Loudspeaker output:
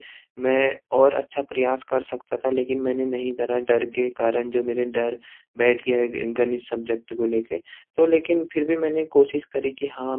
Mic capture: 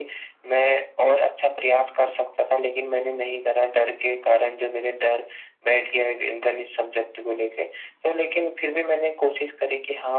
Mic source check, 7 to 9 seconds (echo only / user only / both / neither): echo only